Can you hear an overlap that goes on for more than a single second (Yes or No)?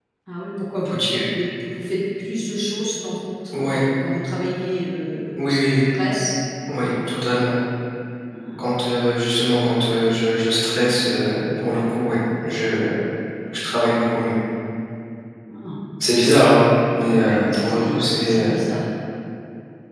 Yes